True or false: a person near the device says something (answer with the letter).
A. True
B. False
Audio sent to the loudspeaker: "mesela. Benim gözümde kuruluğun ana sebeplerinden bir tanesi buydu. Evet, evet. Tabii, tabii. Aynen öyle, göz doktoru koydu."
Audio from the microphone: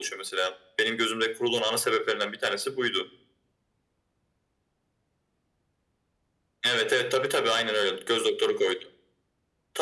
B